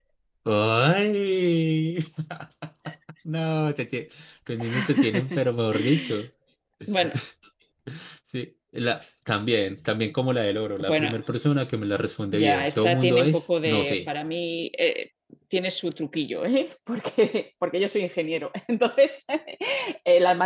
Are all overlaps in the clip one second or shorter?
No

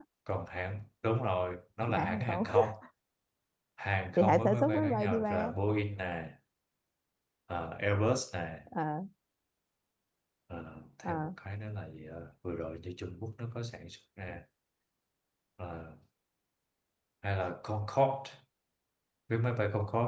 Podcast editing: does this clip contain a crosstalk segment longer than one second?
Yes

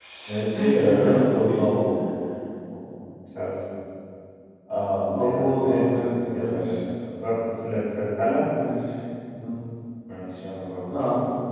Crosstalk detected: Yes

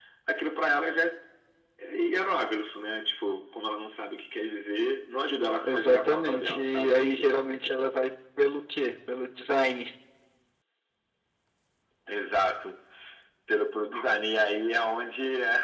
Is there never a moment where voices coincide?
No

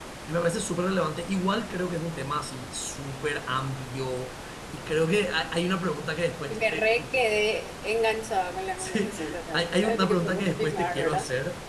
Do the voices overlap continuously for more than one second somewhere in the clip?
Yes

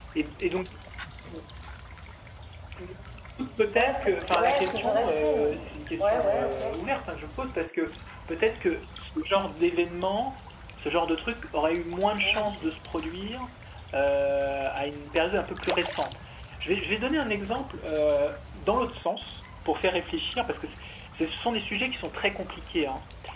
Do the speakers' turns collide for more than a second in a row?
Yes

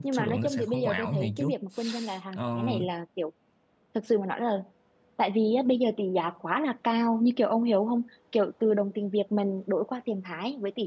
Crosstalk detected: Yes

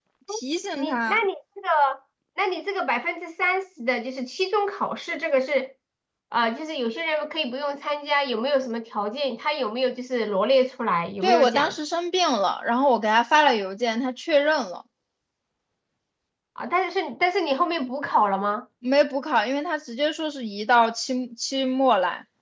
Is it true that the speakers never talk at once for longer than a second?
Yes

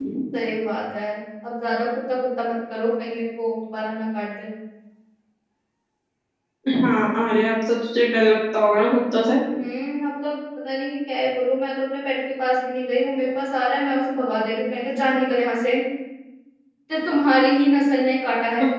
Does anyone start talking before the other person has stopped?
No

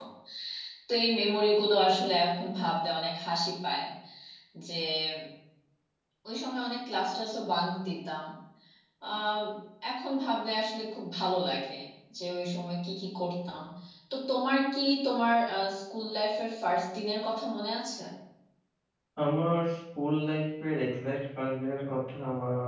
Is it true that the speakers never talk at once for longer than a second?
Yes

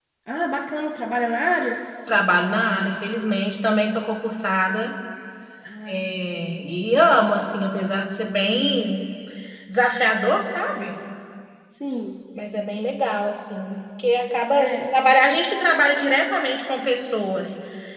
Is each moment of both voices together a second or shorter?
Yes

